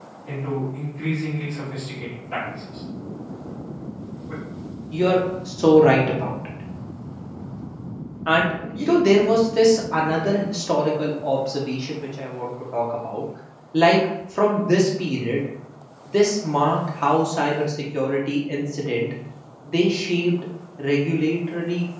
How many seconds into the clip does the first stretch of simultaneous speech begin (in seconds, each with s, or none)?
none